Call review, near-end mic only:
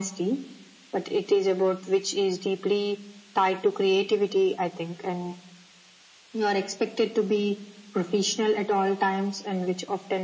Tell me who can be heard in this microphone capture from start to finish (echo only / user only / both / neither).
echo only